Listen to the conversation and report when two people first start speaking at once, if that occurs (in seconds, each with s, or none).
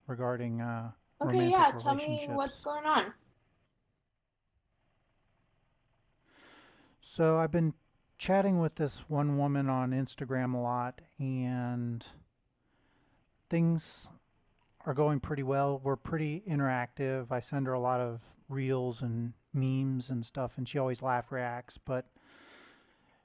1.2 s